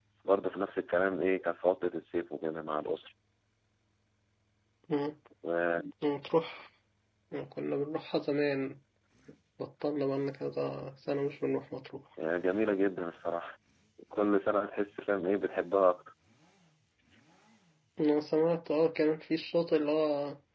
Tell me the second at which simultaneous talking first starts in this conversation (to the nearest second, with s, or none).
none